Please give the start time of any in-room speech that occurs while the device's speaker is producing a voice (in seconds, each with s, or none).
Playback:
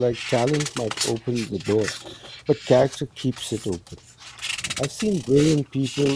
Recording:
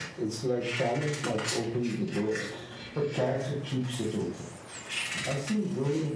none